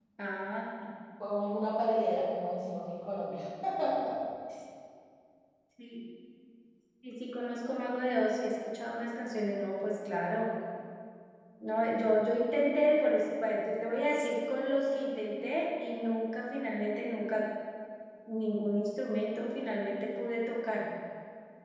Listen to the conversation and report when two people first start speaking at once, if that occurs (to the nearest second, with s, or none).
none